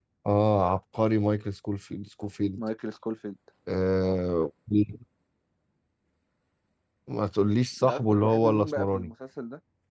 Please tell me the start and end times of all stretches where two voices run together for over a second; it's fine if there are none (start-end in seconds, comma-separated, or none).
7.8-9.1